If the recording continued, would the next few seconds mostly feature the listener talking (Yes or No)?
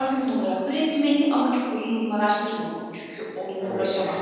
Yes